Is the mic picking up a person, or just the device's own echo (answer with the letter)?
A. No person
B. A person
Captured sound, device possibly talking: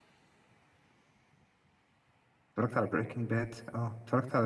B